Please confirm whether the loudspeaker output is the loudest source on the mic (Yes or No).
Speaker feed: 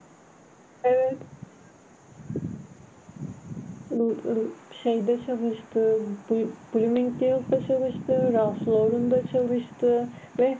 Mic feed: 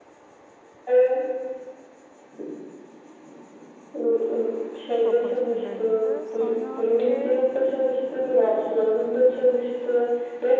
Yes